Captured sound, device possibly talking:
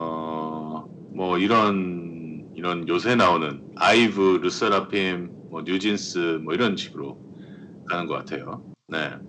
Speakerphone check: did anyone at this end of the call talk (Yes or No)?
No